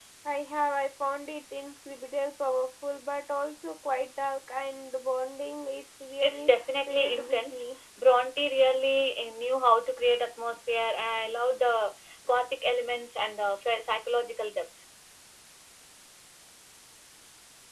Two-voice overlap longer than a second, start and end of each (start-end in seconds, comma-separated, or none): 6.2-7.6